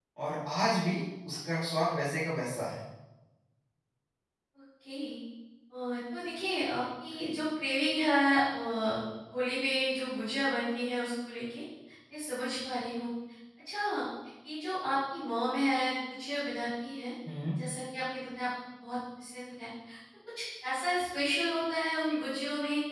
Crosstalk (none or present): none